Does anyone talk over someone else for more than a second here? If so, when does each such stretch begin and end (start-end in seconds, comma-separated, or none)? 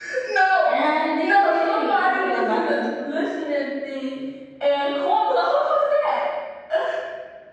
1.2-2.8